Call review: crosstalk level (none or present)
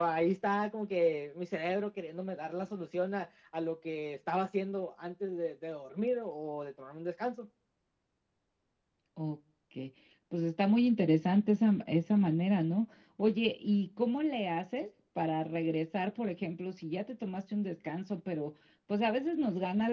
none